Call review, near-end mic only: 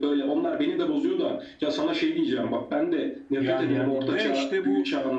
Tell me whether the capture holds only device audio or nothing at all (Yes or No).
No